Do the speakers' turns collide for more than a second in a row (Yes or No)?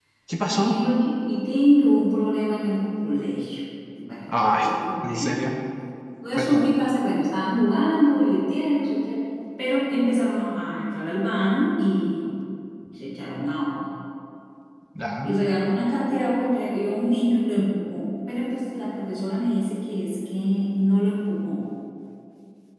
No